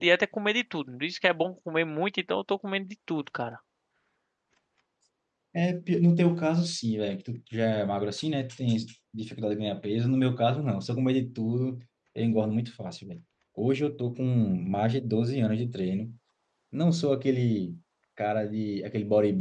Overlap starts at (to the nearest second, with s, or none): none